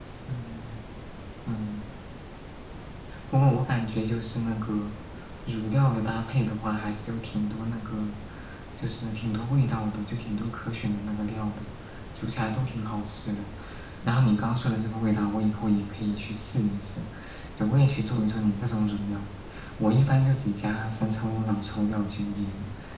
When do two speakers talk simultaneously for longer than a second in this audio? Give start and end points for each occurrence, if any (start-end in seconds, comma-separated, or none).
none